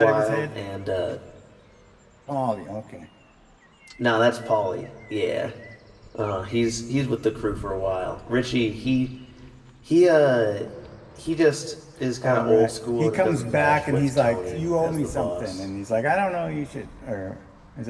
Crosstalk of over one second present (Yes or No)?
Yes